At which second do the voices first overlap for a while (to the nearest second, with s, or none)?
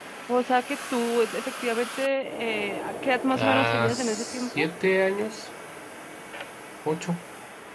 3 s